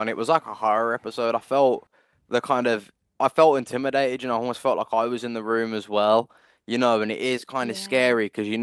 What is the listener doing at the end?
listening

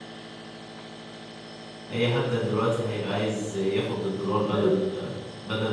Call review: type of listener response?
listening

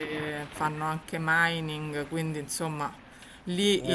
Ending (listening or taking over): listening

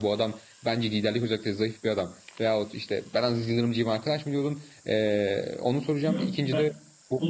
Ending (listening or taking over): taking over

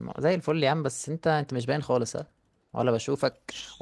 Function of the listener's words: listening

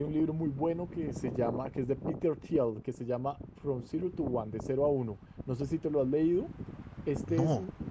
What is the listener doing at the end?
listening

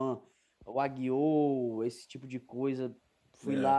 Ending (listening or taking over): listening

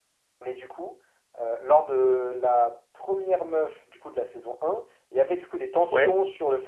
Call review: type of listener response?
listening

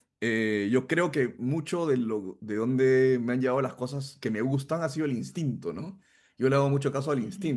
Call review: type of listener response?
listening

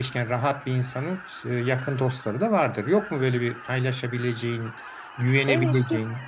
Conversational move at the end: taking over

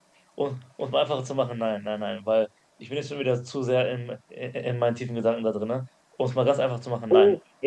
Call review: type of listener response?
taking over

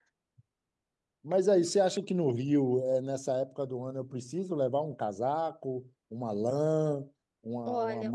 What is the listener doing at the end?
taking over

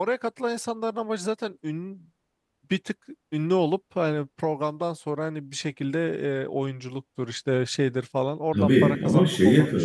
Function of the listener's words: taking over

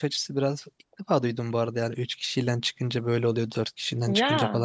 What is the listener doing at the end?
listening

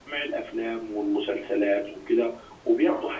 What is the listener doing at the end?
listening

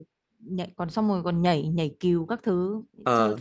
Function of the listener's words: listening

